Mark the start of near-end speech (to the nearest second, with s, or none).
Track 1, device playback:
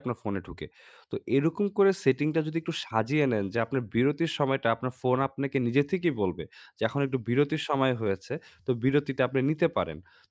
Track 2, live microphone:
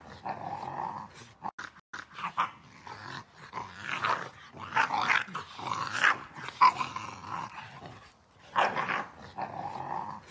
none